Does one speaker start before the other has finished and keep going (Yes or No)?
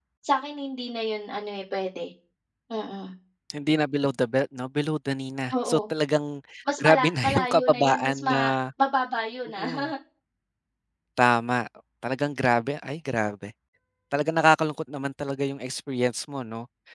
Yes